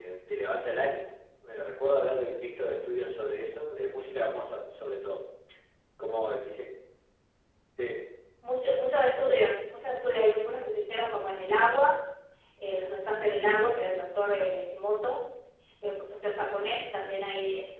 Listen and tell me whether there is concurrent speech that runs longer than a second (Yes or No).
No